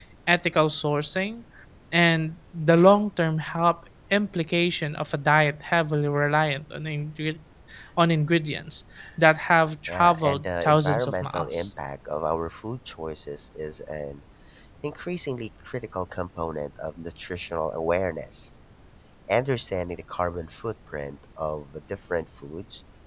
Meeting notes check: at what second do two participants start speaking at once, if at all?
9.9 s

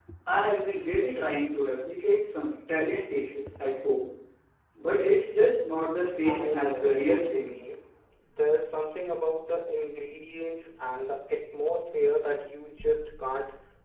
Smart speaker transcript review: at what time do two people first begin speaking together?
6.2 s

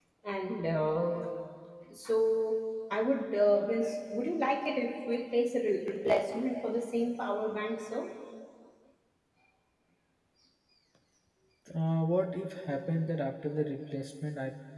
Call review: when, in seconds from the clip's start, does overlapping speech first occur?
none

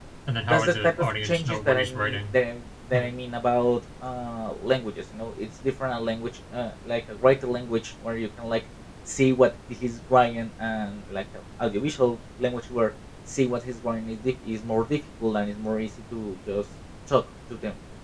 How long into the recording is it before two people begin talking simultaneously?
0.5 s

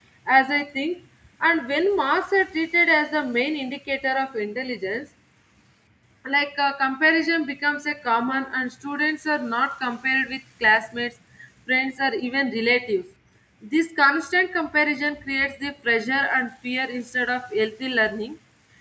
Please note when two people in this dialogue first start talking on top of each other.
none

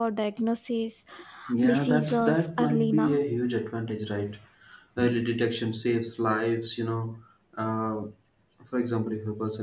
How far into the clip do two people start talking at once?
1.6 s

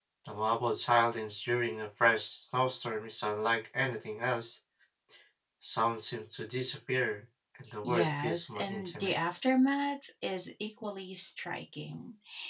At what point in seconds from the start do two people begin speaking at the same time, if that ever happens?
7.8 s

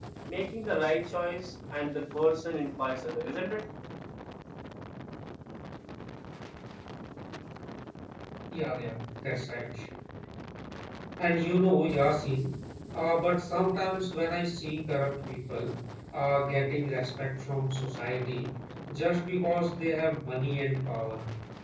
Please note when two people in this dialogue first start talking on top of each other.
none

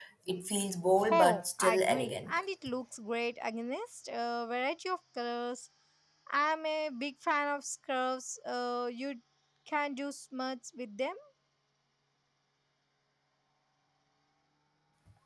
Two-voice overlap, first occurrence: 1.1 s

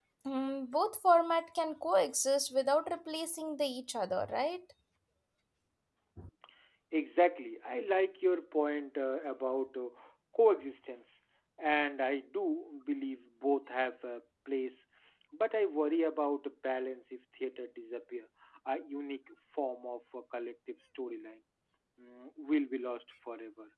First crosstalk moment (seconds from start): none

